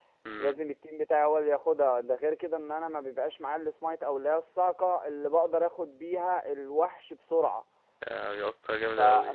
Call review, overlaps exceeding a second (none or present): none